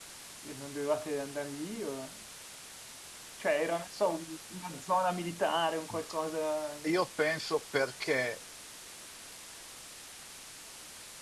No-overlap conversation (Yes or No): Yes